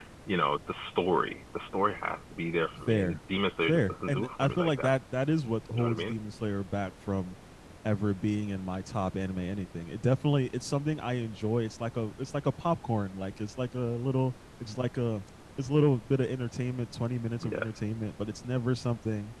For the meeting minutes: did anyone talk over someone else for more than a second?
Yes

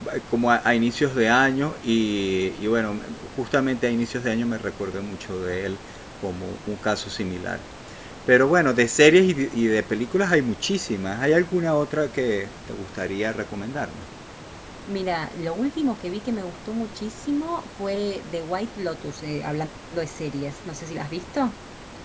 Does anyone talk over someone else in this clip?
No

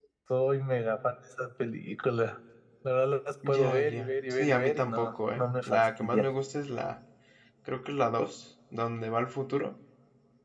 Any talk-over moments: Yes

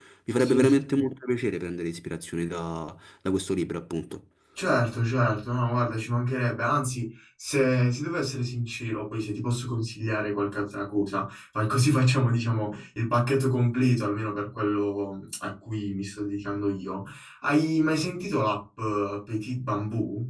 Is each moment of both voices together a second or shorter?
Yes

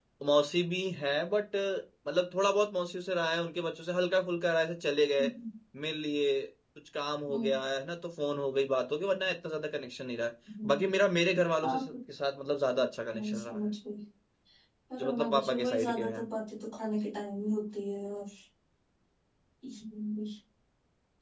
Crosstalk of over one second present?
Yes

